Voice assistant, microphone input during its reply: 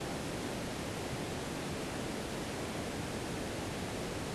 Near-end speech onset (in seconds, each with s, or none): none